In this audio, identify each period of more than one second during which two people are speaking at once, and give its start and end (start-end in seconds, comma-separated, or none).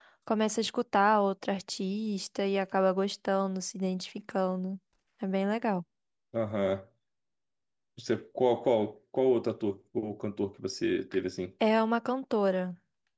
none